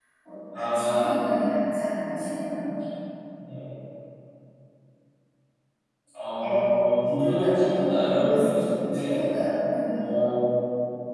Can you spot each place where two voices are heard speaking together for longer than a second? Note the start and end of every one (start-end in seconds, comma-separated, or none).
7.0-9.2